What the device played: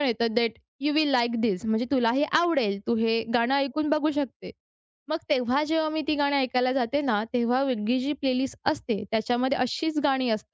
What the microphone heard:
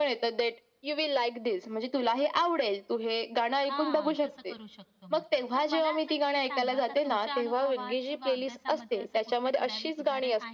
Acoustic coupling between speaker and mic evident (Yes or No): Yes